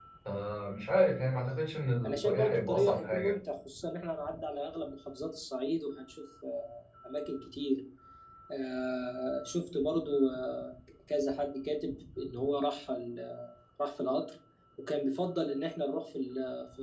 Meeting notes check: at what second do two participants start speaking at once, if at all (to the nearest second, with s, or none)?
2 s